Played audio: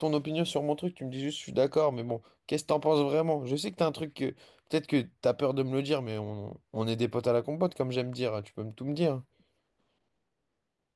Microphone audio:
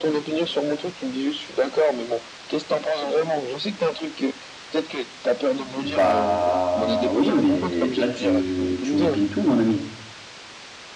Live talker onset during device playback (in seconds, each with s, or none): 5.8 s